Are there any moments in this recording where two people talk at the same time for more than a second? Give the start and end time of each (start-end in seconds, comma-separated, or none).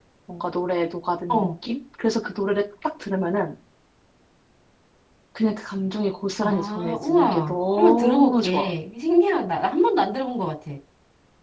6.4-8.7